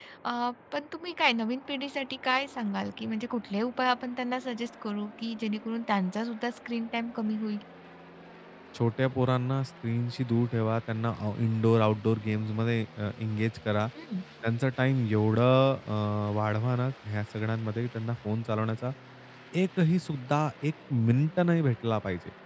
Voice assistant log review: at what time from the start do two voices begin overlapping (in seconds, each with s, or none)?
none